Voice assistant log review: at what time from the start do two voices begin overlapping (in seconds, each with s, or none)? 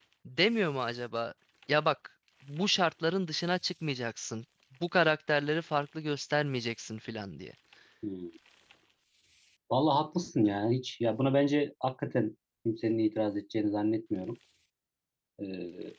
none